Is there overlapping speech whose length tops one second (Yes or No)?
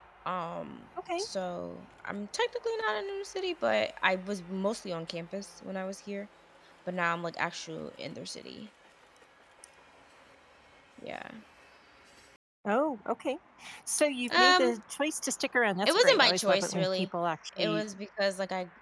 Yes